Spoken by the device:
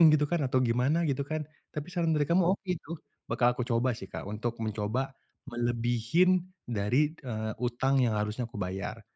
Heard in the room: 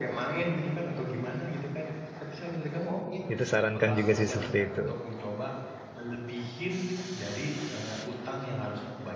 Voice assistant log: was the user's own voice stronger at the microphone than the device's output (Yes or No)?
Yes